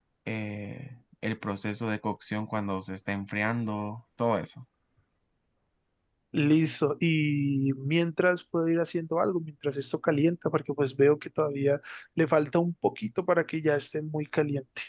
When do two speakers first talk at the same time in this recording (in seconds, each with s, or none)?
none